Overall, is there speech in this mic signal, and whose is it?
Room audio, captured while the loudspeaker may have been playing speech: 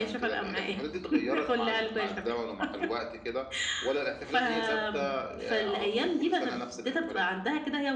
echo only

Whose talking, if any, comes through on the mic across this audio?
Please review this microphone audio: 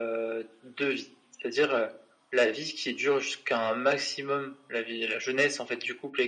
echo only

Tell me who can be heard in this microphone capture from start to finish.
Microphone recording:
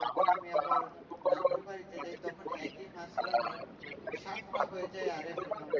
both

